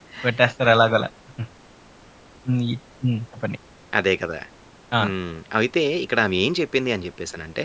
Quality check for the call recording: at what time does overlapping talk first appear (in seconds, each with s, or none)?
none